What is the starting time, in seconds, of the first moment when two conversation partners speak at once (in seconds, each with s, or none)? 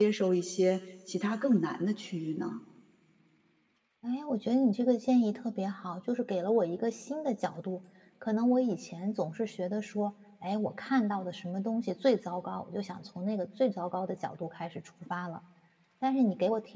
none